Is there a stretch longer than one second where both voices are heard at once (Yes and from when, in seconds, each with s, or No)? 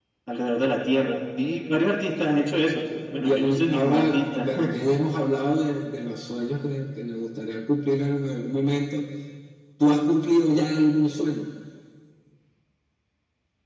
Yes, from 3.2 s